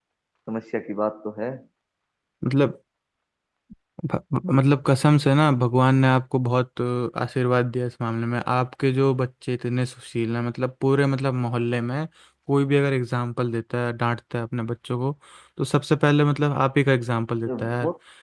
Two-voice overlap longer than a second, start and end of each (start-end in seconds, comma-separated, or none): none